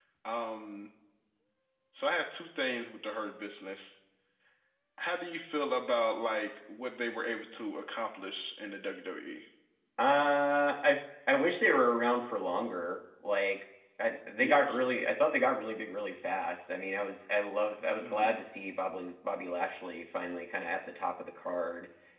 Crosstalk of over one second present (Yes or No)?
No